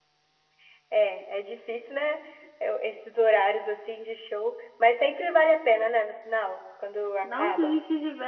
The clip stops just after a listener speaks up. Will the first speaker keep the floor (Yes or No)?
No